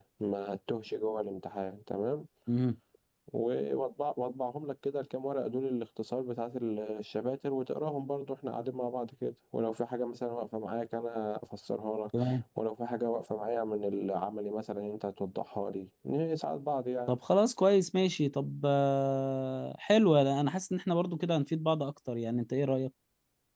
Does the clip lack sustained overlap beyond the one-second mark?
Yes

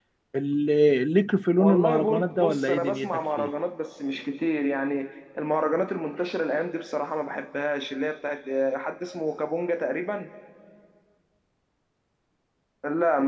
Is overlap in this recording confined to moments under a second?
No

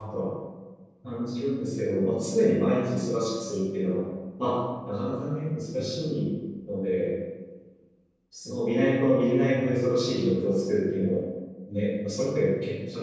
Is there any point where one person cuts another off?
No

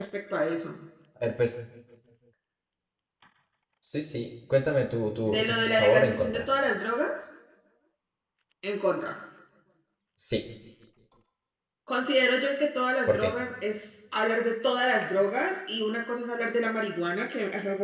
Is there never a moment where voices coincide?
No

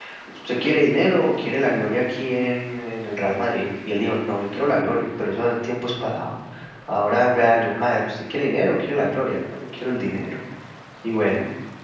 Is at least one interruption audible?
No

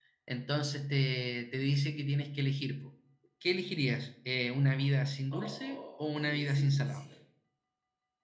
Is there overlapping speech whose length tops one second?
Yes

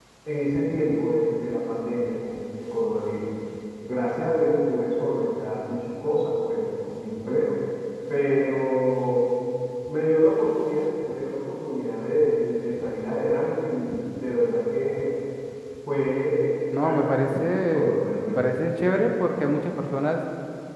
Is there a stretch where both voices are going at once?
Yes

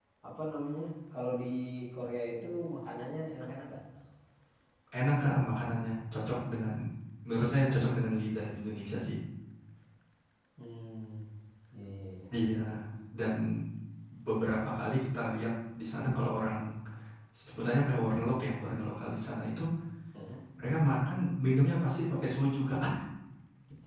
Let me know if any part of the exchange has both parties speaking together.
No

